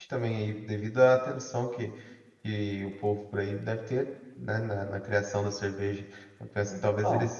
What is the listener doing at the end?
listening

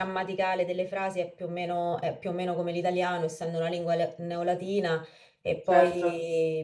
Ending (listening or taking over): listening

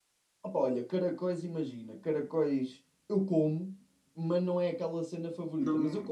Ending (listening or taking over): listening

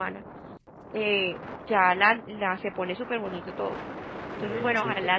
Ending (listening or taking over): listening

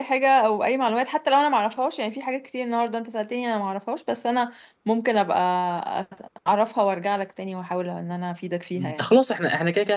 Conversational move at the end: taking over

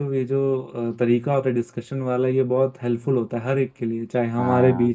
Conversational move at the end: listening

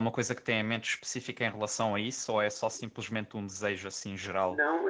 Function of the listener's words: taking over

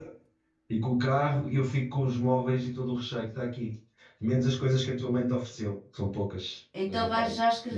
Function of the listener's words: taking over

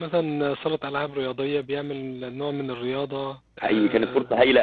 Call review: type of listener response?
taking over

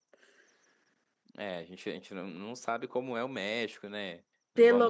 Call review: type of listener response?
taking over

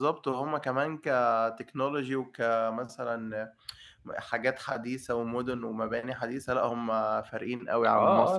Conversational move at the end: taking over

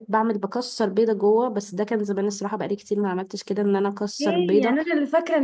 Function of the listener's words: taking over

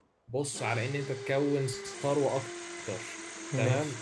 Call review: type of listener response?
listening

